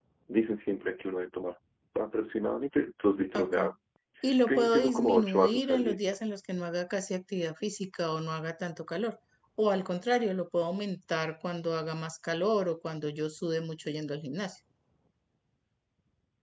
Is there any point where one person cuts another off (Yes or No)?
Yes